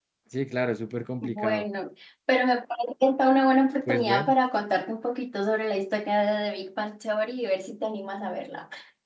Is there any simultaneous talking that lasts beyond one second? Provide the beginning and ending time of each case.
none

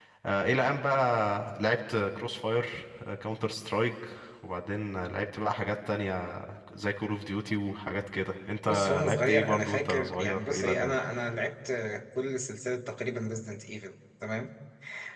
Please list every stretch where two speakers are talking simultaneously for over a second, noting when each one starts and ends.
8.7-11.0

